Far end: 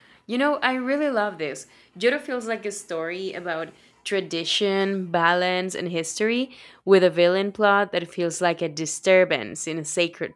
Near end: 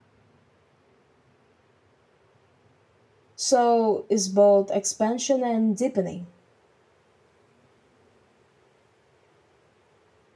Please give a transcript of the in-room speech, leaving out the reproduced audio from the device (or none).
so it's both expansion and deepening.